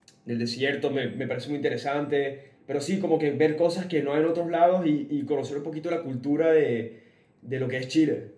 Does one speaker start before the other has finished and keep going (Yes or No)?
No